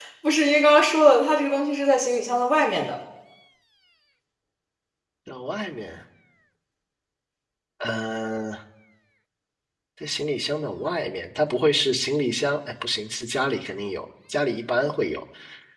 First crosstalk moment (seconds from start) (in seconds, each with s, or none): none